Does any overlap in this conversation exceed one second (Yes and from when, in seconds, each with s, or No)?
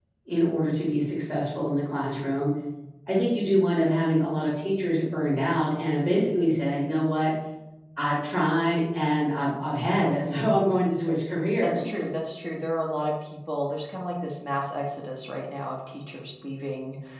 No